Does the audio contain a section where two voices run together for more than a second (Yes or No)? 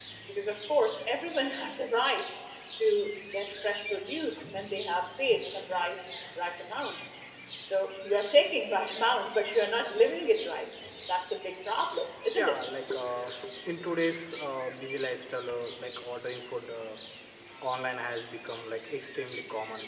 No